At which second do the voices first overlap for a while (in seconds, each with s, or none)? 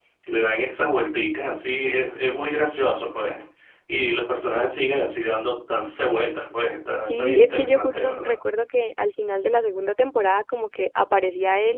7.1 s